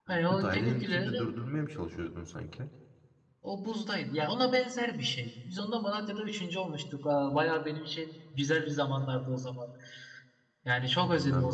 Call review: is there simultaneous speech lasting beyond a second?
Yes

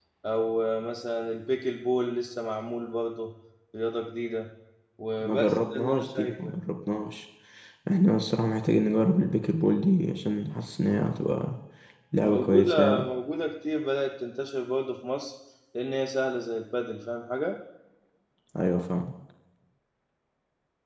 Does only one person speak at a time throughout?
No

